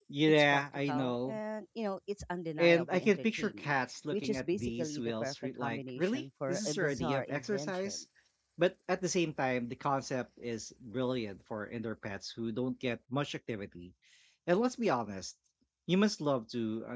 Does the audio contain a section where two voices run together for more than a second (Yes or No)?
Yes